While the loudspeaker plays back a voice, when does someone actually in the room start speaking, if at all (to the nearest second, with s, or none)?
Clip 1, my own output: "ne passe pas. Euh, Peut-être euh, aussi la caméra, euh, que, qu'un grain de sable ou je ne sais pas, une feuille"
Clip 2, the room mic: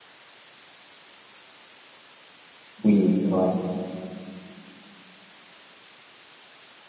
3 s